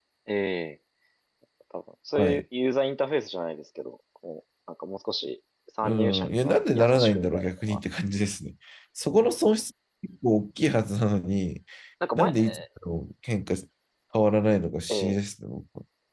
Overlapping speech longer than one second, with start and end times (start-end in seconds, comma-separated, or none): 5.8-7.5